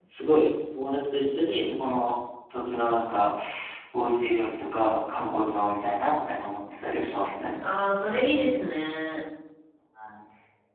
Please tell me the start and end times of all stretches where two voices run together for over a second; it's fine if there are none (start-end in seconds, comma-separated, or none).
none